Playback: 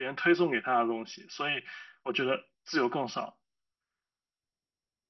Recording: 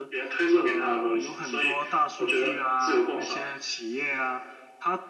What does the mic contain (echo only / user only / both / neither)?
both